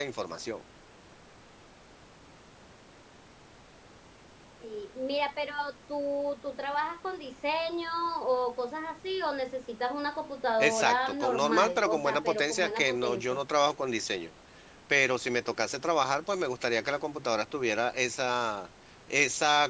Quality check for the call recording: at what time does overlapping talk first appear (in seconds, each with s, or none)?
10.6 s